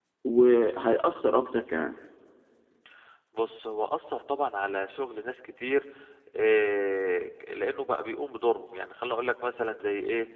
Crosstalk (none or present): none